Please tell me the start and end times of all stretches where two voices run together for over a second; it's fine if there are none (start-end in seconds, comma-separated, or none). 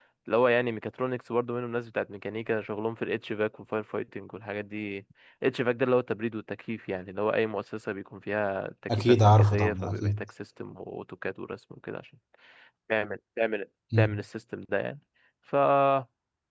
8.9-10.2